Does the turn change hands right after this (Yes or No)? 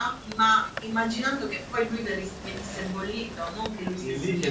Yes